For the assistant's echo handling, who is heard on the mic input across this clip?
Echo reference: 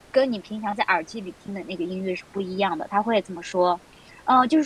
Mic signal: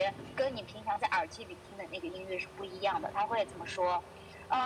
echo only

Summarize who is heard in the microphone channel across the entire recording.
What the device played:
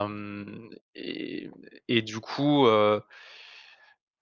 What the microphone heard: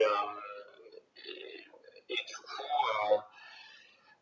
echo only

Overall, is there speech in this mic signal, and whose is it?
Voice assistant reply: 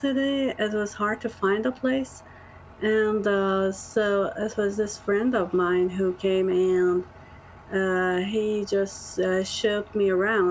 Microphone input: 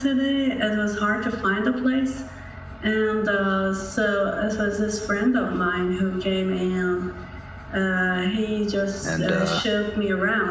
both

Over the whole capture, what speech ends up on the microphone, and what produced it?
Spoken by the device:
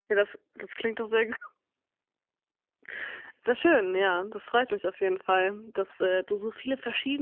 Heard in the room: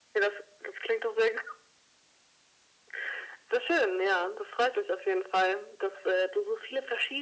echo only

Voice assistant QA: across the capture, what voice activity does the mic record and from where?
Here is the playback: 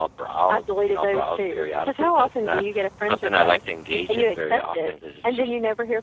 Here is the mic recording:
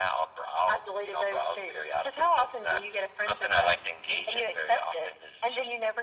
echo only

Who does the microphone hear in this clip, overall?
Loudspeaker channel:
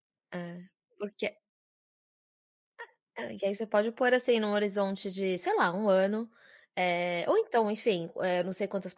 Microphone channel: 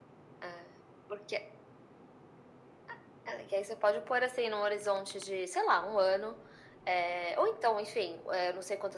echo only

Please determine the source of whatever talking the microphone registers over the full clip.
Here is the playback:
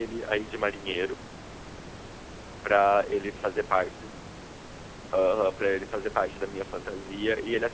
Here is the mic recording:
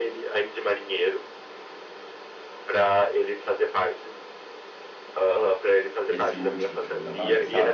both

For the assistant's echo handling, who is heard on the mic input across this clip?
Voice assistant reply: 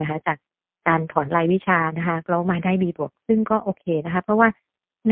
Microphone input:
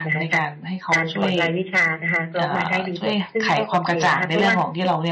both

